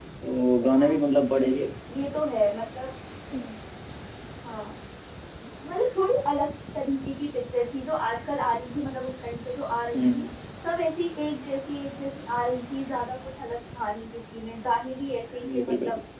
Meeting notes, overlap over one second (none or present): none